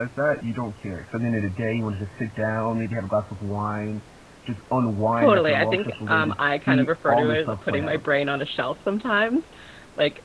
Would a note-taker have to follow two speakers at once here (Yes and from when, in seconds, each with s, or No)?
Yes, from 5.2 s